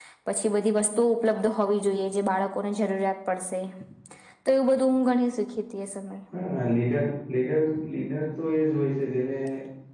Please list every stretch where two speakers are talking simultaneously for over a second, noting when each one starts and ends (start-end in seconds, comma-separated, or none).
none